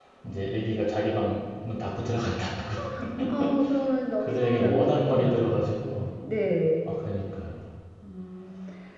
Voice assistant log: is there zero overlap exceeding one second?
No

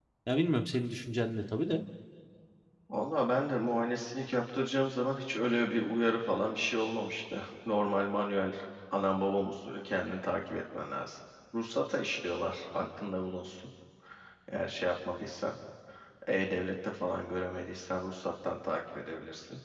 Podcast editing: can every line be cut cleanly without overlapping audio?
Yes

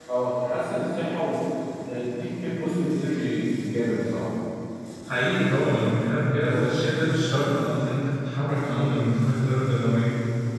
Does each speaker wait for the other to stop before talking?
Yes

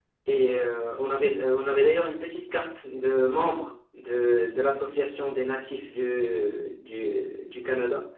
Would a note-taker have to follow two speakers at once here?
No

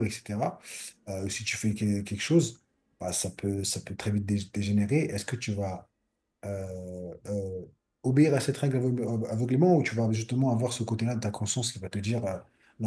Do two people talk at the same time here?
No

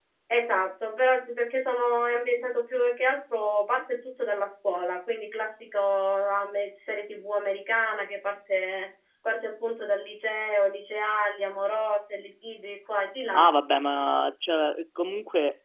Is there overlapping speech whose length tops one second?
No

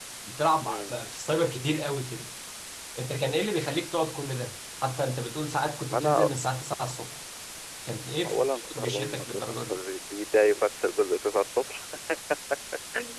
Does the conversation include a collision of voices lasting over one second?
Yes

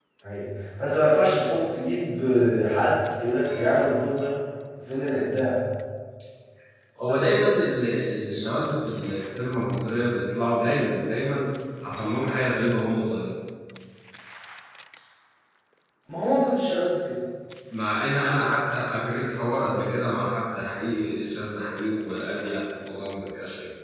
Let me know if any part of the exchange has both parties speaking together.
No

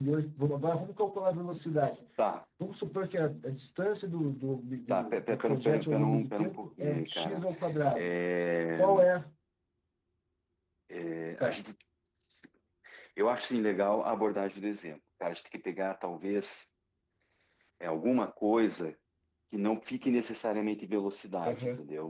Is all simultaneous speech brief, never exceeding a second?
No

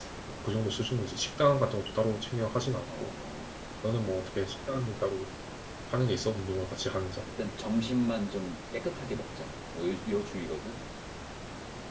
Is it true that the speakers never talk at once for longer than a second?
Yes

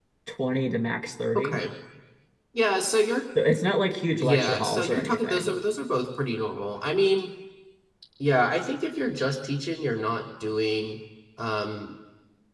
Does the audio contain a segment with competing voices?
Yes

